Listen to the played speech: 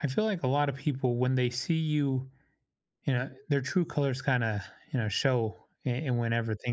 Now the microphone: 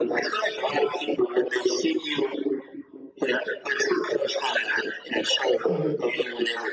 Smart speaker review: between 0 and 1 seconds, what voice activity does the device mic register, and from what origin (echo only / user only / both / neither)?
echo only